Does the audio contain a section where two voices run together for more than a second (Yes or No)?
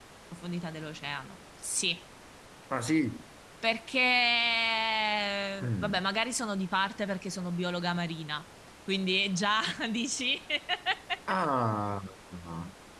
No